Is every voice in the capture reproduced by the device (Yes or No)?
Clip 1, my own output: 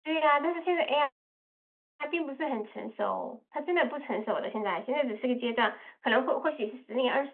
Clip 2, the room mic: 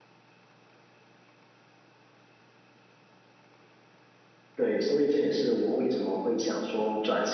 No